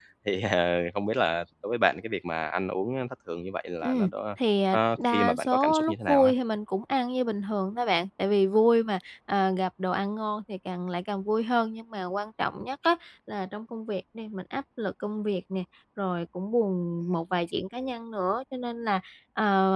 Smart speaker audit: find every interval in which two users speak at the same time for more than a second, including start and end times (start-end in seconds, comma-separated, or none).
4.7-6.3